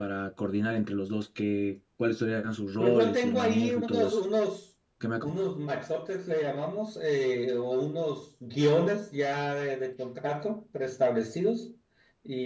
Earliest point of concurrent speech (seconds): 2.8 s

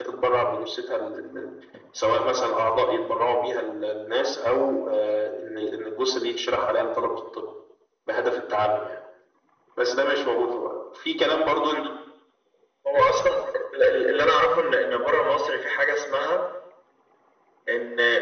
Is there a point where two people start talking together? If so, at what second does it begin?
none

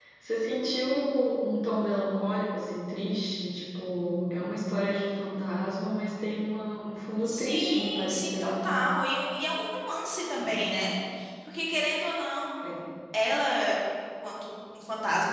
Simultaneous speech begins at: 7.2 s

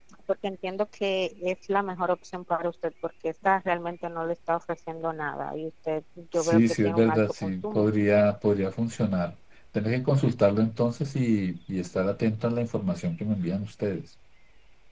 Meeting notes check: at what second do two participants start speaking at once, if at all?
6.4 s

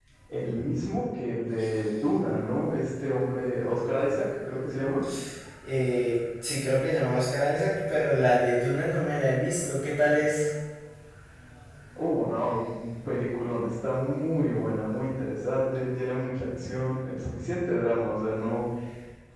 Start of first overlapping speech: none

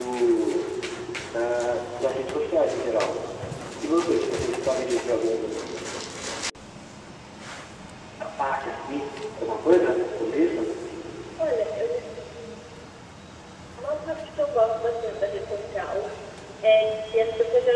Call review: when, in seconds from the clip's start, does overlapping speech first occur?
none

